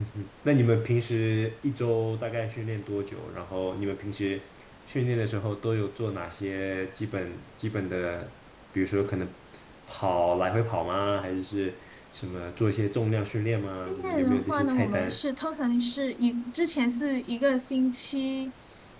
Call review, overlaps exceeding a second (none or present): present